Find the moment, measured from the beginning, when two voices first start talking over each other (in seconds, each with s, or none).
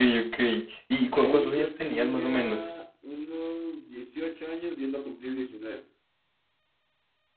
1.1 s